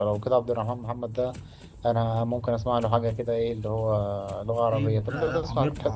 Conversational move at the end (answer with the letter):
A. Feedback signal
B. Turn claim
B